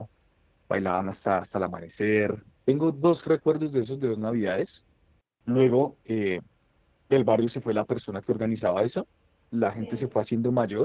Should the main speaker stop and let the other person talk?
No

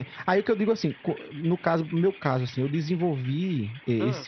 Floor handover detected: No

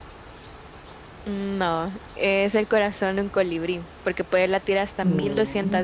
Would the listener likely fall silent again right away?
Yes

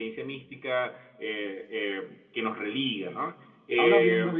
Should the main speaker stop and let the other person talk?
Yes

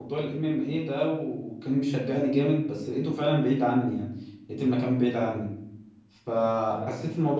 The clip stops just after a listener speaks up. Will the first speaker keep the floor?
Yes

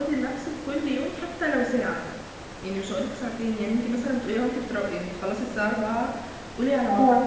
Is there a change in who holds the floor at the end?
No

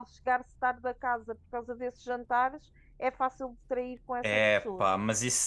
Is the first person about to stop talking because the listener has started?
Yes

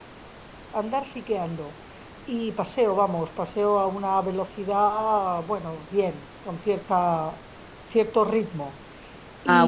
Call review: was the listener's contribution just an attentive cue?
No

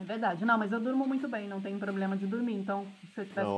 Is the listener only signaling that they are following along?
Yes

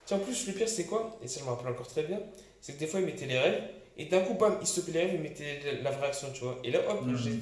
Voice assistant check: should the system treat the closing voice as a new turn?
No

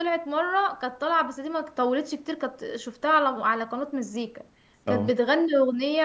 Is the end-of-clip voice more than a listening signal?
No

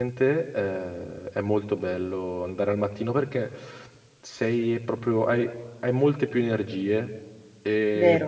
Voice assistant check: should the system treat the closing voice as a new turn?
No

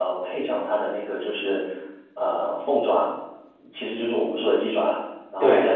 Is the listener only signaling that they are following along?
Yes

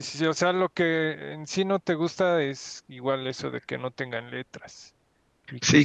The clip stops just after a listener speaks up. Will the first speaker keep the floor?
No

